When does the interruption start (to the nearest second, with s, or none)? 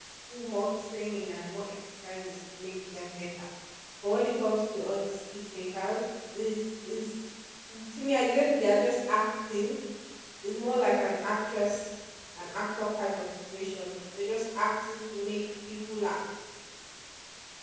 none